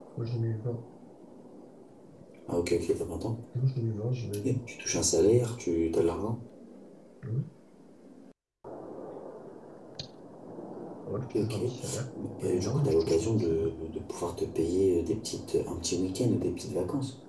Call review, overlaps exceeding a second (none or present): present